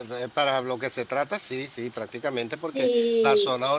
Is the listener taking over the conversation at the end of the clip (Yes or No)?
No